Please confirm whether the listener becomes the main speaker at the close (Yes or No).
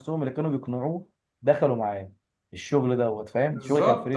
Yes